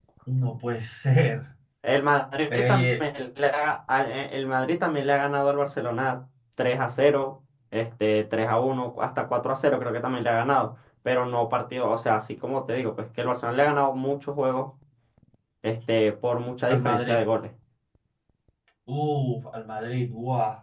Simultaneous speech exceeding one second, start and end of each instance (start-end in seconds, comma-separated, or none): none